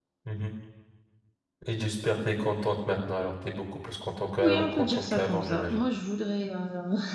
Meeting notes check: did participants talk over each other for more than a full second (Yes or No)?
Yes